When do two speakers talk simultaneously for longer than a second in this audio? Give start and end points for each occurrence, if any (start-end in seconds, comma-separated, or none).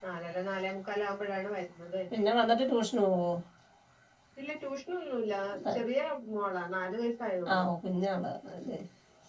none